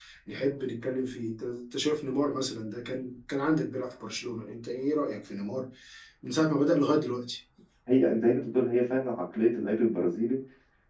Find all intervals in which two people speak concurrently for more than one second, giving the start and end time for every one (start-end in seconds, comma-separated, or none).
none